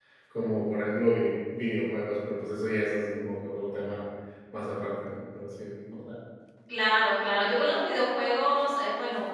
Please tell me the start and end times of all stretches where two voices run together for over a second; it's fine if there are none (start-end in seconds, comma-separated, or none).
none